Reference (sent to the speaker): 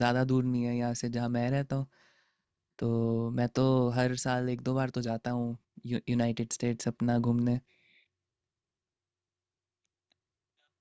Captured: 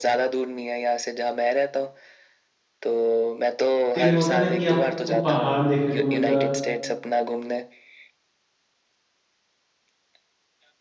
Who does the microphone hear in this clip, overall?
both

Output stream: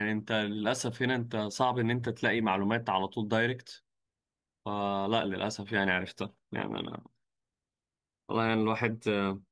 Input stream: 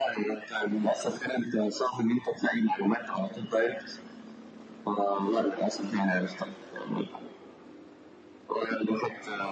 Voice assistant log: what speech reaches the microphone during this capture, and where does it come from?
echo only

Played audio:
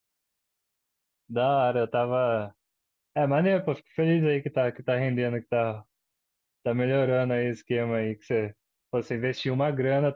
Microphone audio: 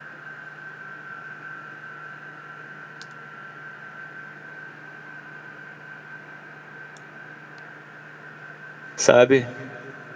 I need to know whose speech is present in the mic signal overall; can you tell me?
user only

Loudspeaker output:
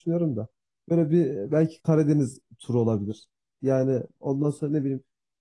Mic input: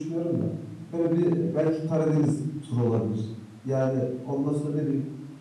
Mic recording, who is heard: echo only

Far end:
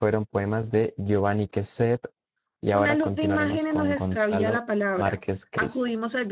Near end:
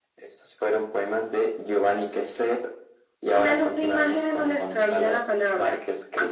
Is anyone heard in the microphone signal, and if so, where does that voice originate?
echo only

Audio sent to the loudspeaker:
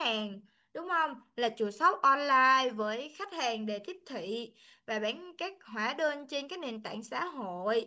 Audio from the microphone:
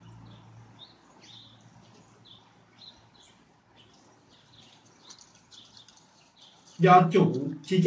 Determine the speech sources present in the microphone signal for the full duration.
user only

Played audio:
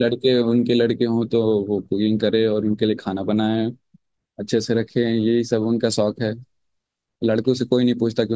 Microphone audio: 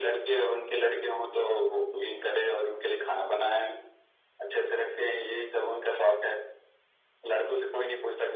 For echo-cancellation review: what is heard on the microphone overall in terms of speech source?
echo only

